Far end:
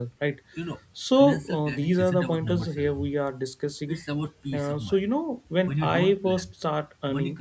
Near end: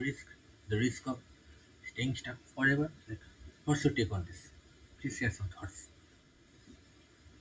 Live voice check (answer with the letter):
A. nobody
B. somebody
B